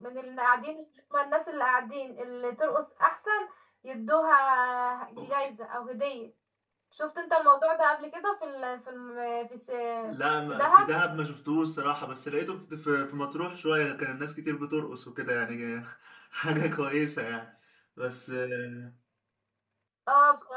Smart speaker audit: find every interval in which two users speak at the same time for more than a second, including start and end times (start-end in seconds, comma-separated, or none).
none